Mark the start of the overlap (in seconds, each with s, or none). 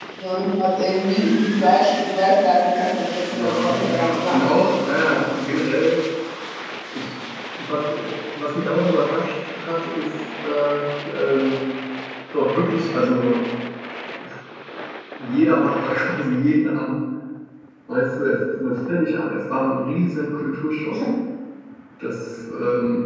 3.3 s